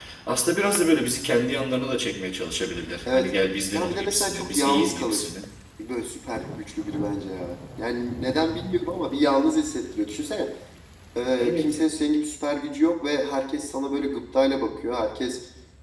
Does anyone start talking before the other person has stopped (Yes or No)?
Yes